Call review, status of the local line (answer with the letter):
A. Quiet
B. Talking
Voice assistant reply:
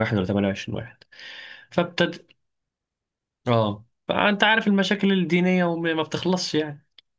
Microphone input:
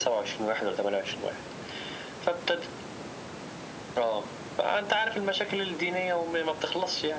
A